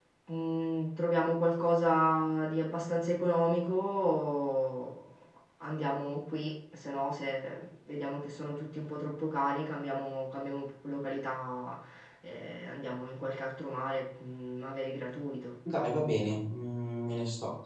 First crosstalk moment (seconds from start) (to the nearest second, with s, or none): none